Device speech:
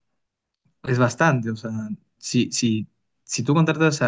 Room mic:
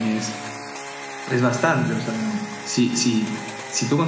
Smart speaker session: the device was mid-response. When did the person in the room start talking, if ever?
none

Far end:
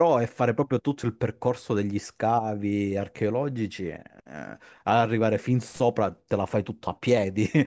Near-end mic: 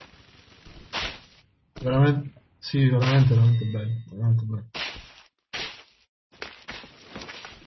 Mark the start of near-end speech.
1.8 s

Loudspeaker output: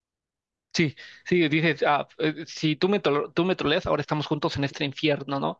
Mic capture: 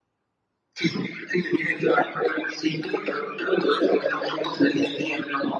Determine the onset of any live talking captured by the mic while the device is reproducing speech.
none

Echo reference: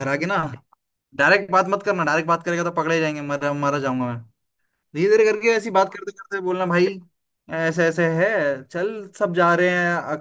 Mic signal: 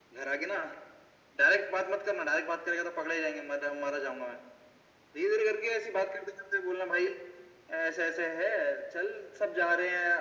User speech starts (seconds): none

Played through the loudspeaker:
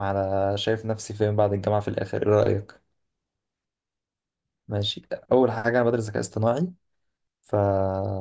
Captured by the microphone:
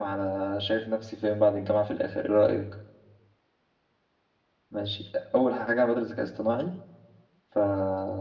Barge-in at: none

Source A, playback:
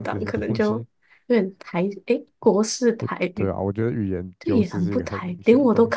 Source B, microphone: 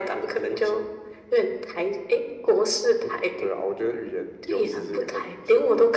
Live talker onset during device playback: none

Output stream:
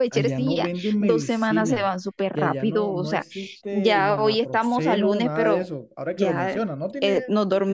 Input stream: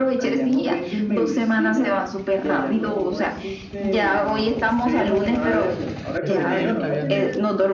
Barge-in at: 6.2 s

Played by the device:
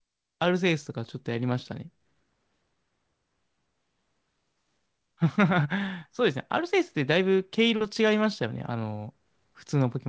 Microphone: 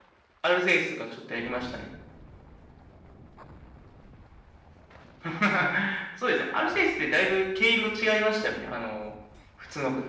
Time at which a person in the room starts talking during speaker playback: none

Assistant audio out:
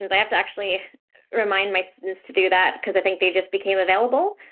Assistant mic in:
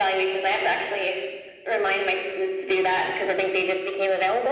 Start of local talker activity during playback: none

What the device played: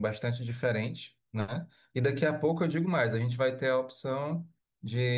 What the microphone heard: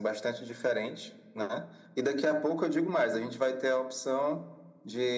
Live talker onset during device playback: none

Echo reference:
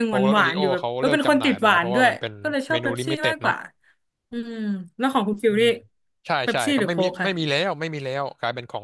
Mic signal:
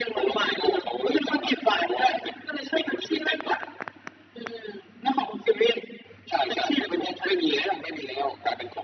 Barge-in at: none

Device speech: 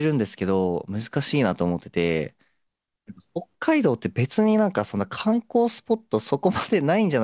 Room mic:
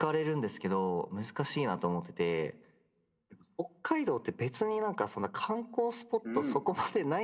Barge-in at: 6.2 s

